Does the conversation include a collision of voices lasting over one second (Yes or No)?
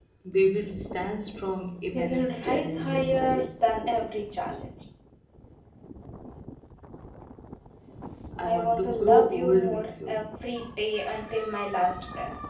Yes